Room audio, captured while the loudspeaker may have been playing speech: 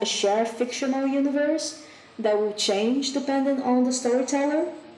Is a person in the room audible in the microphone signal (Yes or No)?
No